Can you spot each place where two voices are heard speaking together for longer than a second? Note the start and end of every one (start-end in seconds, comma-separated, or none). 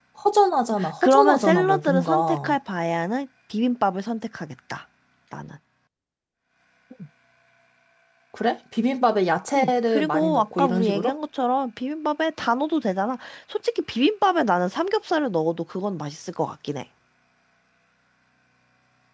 1.0-2.6, 9.6-11.1